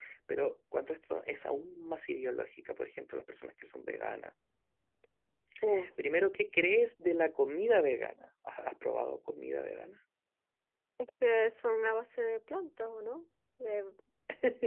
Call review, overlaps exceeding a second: none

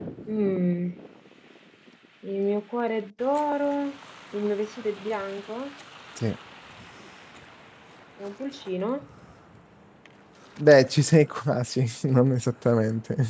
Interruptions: none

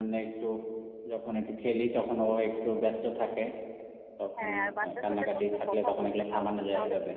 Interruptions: present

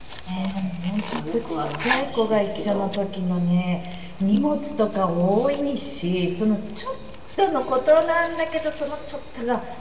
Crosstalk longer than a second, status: present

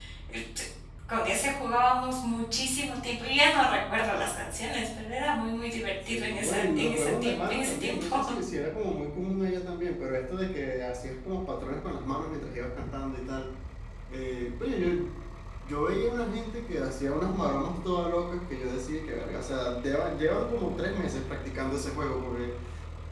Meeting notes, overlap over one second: present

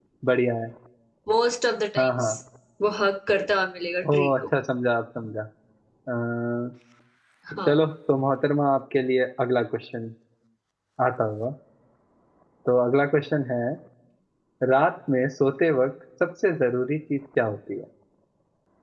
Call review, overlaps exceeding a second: none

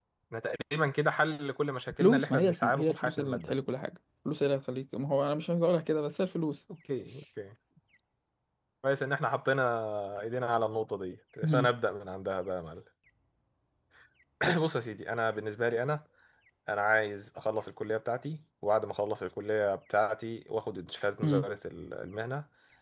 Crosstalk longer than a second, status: present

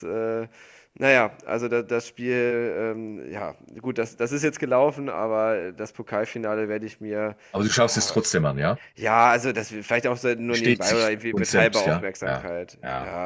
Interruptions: present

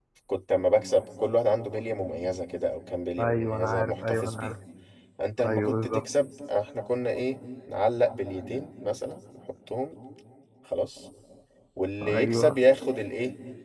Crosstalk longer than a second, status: present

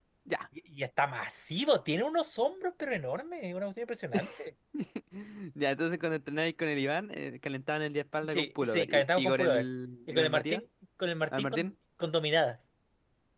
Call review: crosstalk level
present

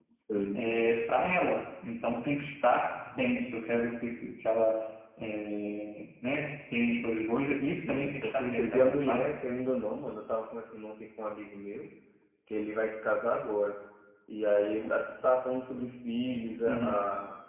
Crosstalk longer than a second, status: present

